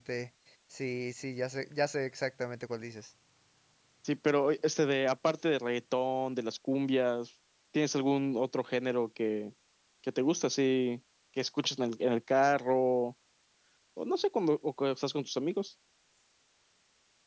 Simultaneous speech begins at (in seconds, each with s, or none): none